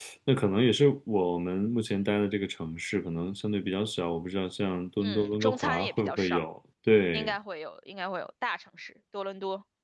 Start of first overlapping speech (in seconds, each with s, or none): 5.0 s